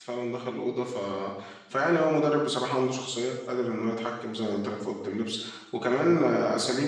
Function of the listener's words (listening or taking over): listening